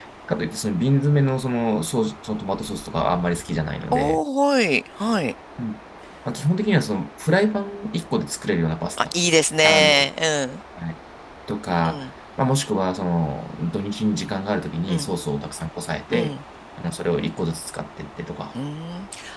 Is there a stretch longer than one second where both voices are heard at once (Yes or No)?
No